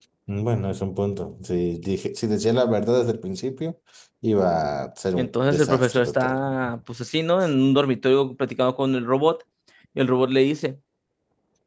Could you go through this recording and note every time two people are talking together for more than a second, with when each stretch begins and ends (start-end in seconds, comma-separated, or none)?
5.2-6.4